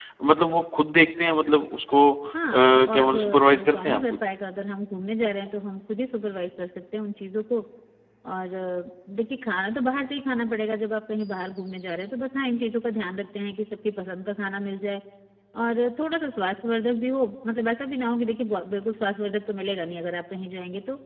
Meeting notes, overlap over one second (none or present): present